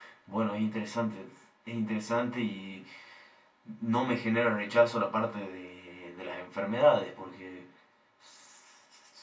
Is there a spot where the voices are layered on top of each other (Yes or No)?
No